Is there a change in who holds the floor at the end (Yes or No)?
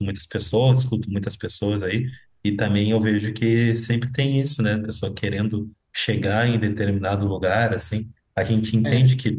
No